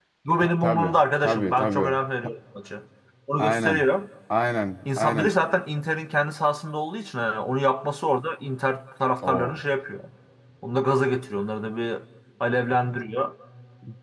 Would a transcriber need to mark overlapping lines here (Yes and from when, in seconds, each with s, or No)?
Yes, from 0.6 s